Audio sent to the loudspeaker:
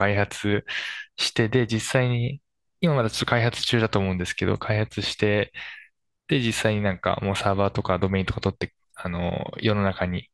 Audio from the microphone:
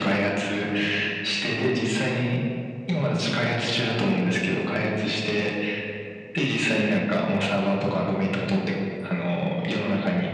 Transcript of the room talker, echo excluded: none

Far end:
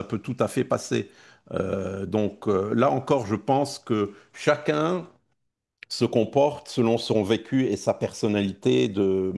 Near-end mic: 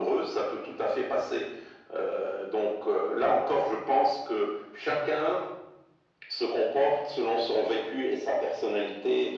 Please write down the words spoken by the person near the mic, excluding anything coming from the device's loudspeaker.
none

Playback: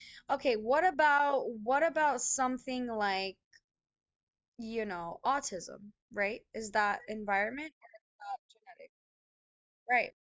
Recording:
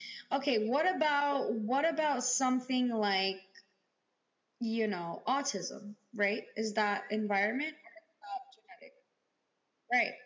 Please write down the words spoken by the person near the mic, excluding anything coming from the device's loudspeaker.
none

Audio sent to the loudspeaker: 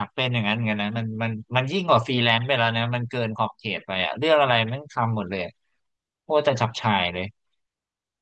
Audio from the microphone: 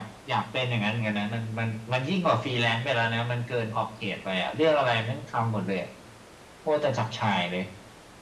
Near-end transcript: none

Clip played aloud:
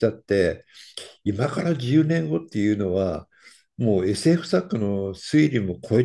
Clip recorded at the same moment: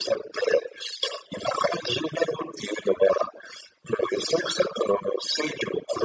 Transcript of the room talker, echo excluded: none

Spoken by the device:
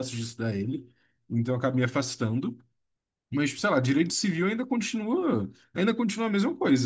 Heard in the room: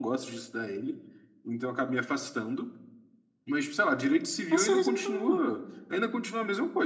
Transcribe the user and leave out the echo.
É só resolver problema.

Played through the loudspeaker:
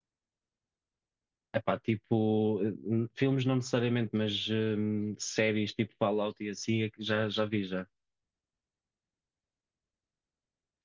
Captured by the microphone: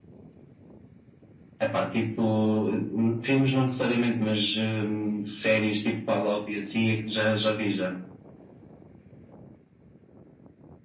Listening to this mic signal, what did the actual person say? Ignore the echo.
none

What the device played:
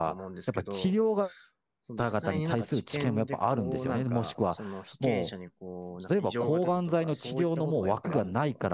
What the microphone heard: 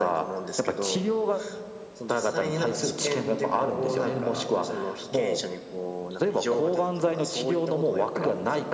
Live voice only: none

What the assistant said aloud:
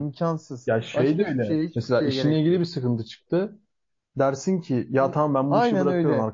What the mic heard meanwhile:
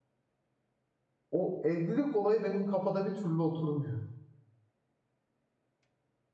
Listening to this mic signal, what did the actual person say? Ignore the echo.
o evlilik olayı benim kafada bir türlü oturmuyor.

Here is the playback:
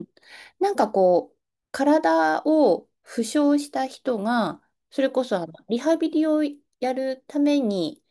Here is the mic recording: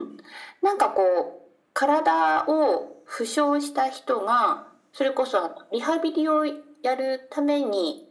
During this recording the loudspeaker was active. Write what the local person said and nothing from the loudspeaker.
none

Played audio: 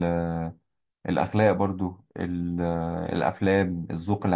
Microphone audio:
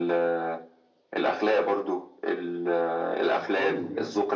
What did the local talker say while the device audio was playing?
آه، خالص بجد

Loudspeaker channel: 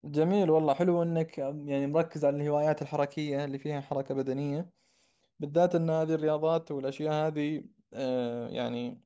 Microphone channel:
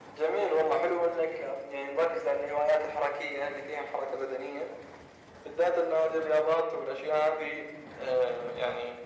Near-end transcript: none

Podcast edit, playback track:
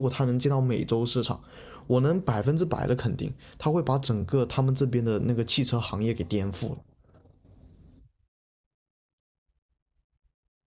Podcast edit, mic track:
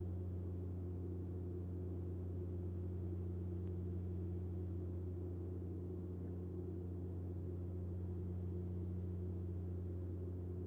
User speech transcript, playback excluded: none

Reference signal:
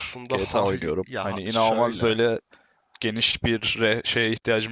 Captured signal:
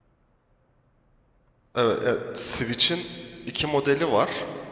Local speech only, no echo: Evet, e, Switch'in iki modeli var.

